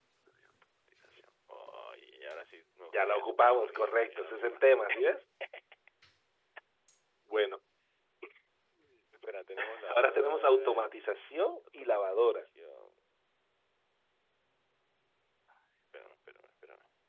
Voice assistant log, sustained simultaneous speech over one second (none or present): present